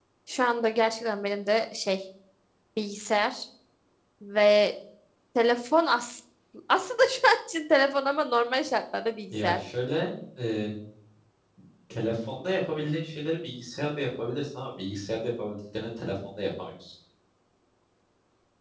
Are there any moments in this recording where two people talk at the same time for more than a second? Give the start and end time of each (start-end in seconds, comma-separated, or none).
none